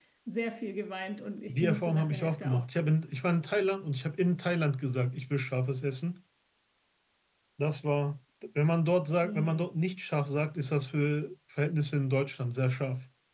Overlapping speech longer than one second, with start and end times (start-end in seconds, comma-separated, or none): 1.5-2.9